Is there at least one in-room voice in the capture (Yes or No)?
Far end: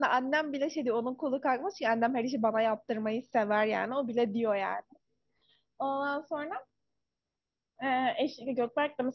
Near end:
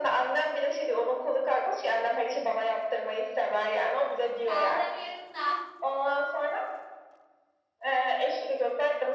Yes